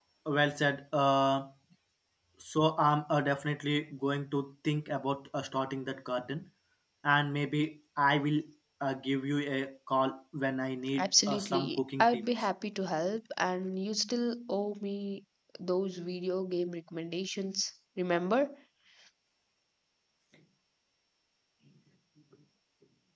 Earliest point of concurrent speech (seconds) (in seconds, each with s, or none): 10.9 s